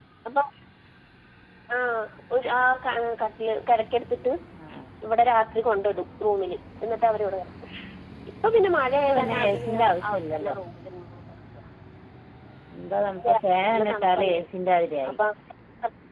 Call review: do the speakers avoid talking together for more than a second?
No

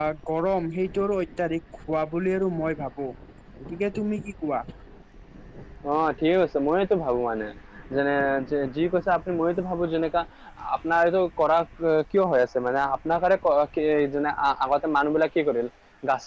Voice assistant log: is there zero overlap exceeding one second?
Yes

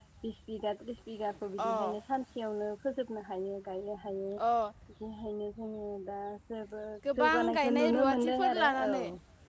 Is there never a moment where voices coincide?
No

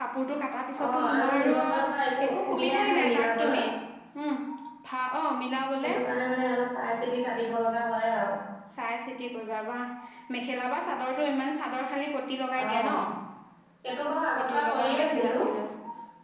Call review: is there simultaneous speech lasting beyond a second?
Yes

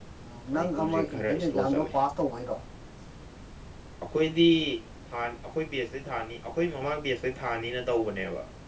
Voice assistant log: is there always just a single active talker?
No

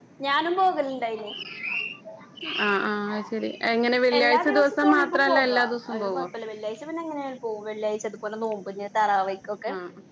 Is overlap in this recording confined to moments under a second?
No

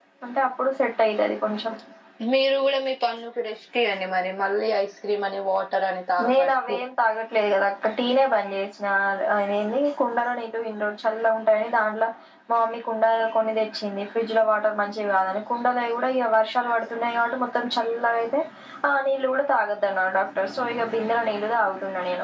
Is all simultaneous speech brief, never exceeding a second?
Yes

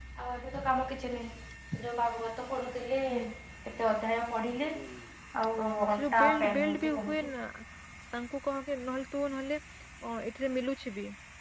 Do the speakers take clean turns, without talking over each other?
No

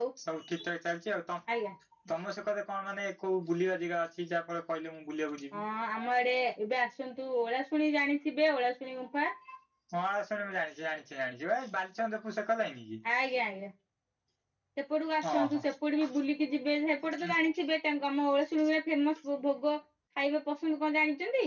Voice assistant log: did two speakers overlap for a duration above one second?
No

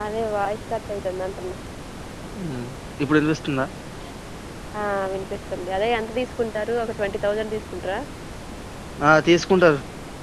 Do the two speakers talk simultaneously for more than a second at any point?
No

